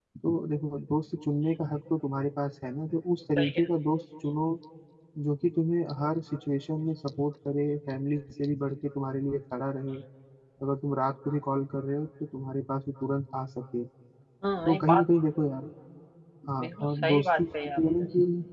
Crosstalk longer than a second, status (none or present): present